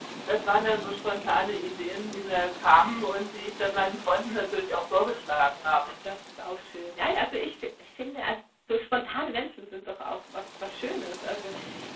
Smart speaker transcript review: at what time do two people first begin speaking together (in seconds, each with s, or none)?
none